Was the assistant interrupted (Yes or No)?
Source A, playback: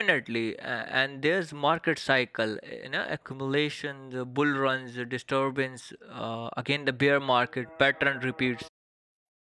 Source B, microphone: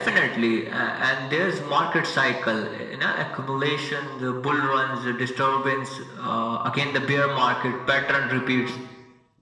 No